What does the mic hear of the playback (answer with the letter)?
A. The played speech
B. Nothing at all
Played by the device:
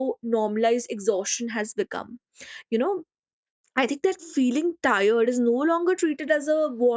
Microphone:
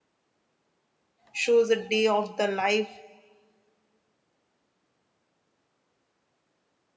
B